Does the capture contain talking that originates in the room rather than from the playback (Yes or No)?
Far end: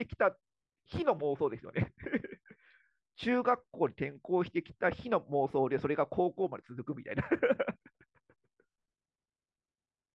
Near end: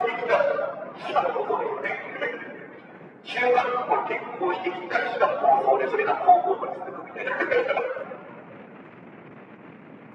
No